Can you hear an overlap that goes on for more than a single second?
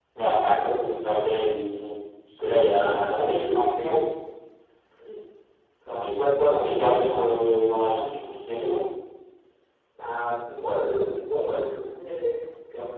Yes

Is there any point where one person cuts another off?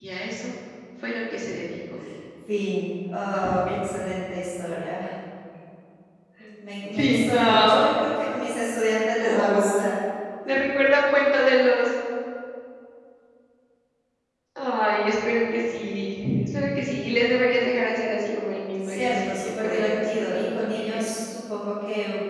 Yes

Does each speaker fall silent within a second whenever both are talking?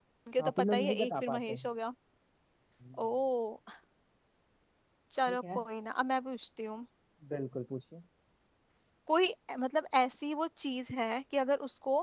No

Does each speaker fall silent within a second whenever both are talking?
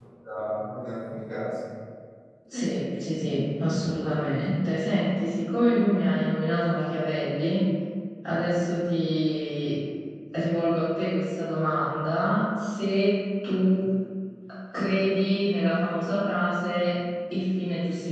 Yes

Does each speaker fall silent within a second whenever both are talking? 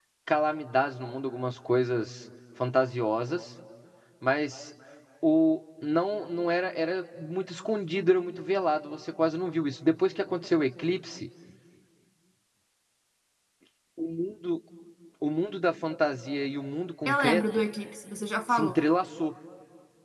Yes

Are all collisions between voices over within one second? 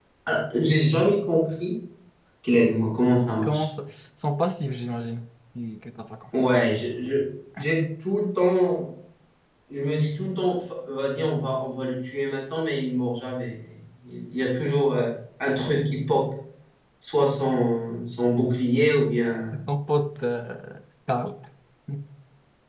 Yes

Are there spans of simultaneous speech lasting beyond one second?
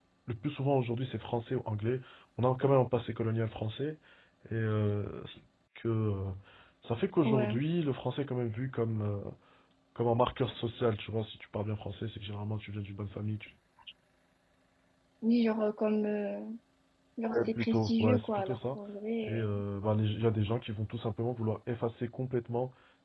Yes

